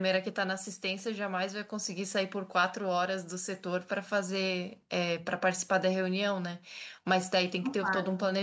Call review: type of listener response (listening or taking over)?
listening